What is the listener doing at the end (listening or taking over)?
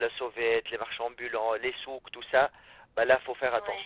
listening